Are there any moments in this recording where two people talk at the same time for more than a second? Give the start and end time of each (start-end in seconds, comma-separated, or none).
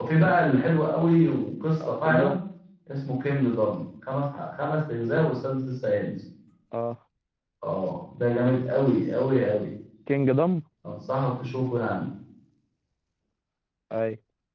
none